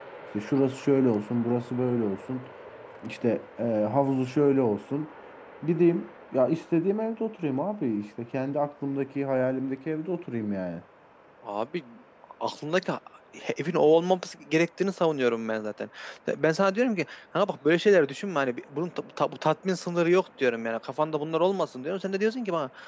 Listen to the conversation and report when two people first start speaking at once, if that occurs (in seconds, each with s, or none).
none